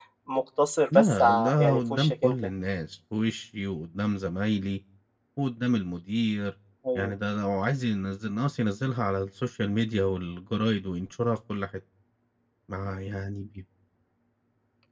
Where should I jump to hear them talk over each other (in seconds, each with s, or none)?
1.0 s